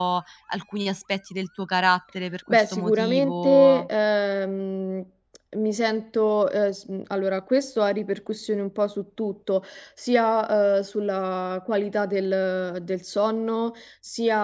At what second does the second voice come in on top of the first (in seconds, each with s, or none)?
2.5 s